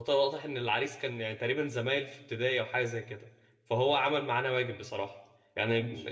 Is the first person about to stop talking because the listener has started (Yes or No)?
No